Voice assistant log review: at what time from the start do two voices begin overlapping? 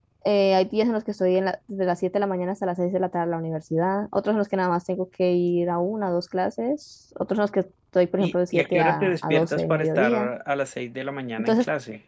8.2 s

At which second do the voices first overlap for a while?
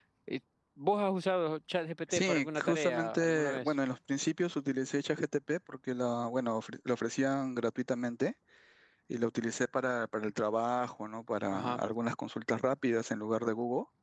2.1 s

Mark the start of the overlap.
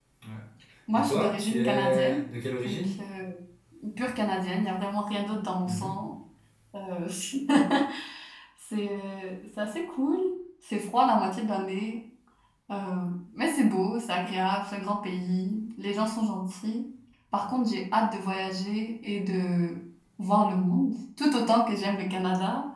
0.9 s

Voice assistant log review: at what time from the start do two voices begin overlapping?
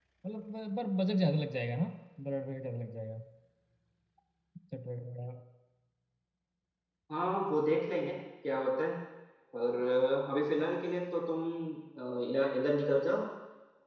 none

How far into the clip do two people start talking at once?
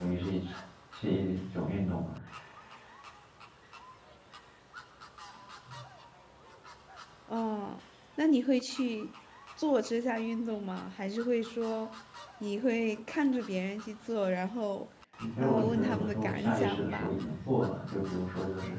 15.4 s

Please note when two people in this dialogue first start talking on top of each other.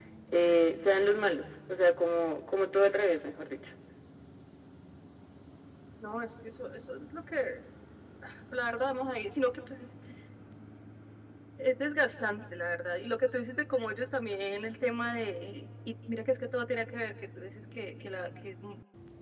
none

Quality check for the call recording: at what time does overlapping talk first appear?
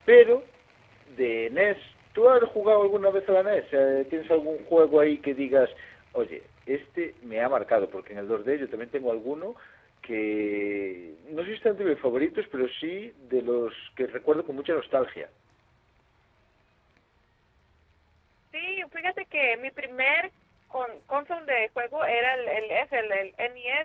none

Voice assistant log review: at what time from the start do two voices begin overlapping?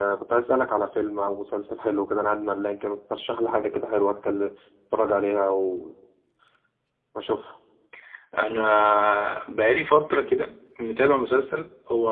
none

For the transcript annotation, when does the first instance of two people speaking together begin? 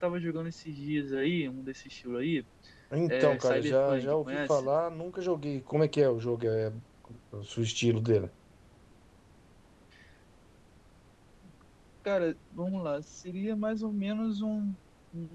3.1 s

